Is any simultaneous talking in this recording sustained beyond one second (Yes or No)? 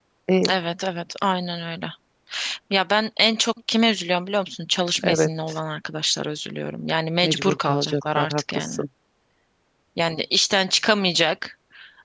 Yes